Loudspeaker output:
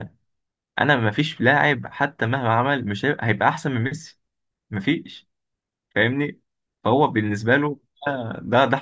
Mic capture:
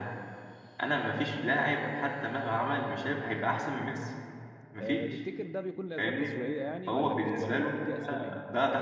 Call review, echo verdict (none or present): present